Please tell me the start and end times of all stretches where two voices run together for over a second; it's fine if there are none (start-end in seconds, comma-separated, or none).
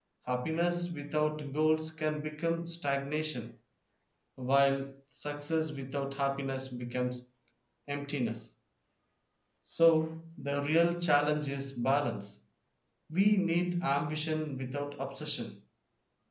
none